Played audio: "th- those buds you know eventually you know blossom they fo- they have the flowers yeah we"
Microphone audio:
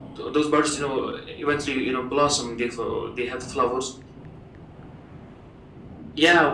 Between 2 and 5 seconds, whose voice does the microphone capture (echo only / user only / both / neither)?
echo only